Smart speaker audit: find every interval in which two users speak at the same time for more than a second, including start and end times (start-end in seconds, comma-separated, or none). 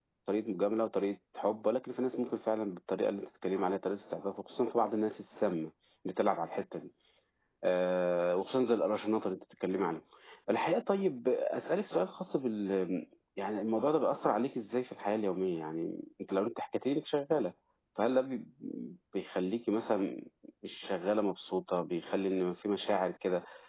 none